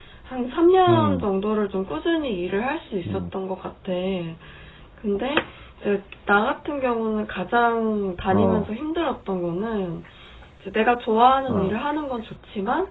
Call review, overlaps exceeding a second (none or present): none